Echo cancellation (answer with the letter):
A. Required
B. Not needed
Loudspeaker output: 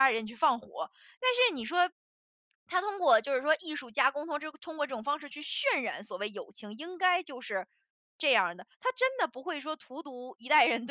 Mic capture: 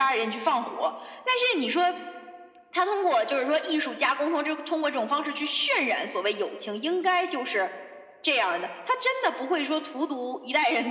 A